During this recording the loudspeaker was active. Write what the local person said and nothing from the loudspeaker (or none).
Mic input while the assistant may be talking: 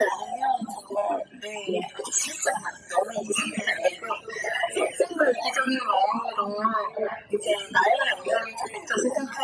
none